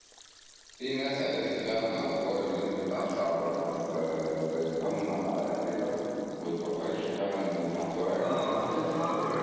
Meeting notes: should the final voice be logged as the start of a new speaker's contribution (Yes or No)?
Yes